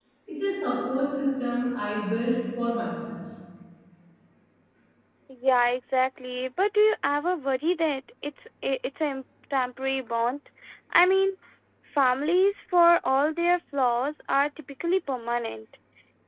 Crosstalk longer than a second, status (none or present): none